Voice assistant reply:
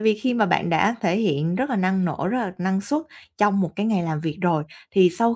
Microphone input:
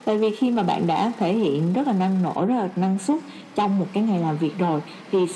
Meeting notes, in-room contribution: none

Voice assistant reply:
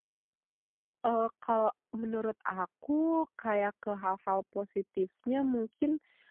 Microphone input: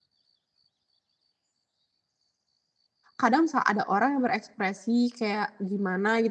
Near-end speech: present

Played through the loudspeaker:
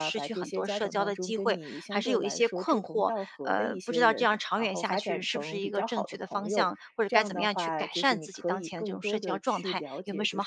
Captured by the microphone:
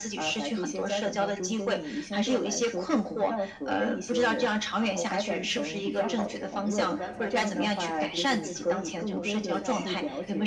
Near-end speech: present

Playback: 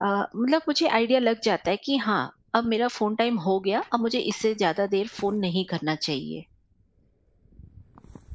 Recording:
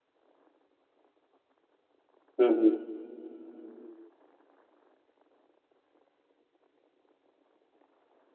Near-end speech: present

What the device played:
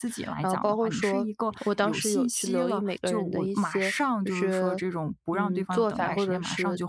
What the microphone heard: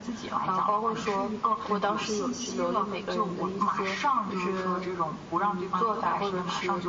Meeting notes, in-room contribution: present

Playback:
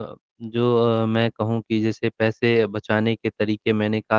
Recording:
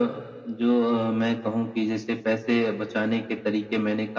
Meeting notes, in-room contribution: none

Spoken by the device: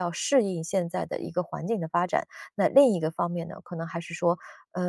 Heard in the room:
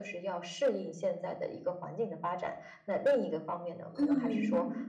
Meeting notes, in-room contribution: present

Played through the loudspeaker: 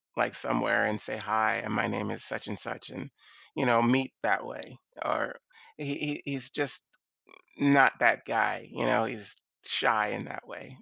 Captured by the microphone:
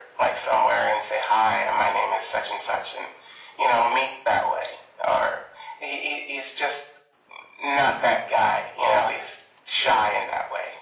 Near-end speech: none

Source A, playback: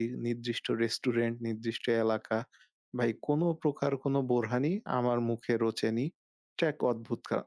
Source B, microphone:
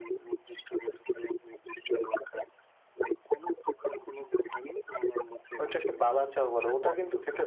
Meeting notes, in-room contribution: present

